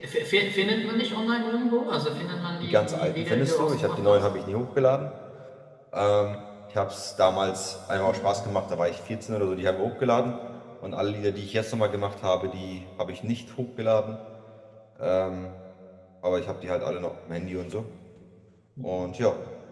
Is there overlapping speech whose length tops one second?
Yes, from 2.6 s

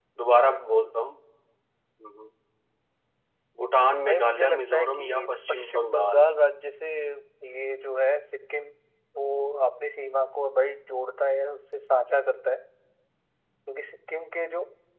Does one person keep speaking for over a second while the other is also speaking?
Yes, from 4.0 s

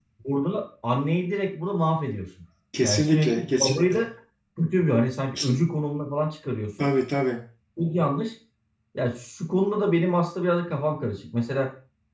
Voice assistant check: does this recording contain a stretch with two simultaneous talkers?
Yes, from 2.8 s

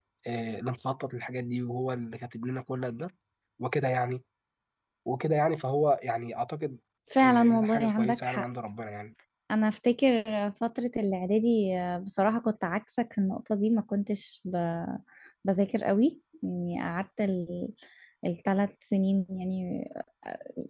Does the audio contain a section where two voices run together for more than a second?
Yes, from 7.2 s

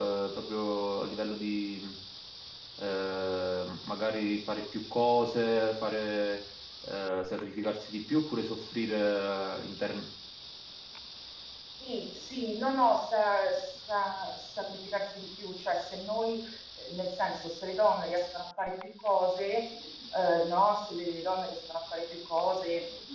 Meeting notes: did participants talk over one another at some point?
No

